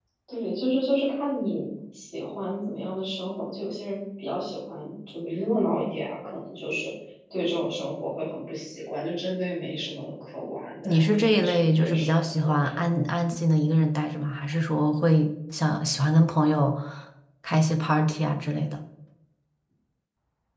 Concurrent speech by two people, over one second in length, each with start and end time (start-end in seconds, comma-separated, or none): 10.8-12.8